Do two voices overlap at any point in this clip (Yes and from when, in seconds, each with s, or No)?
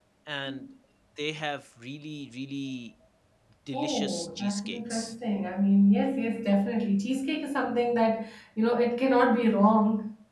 Yes, from 3.7 s